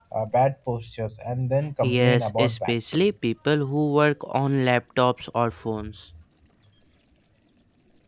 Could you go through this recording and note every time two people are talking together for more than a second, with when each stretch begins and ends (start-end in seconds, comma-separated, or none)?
1.8-3.1